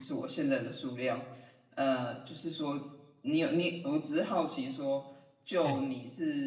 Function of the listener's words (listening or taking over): listening